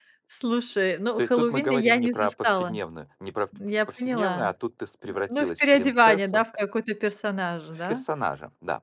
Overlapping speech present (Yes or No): Yes